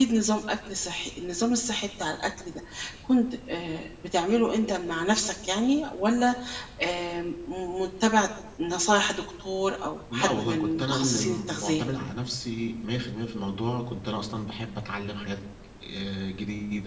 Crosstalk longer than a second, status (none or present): present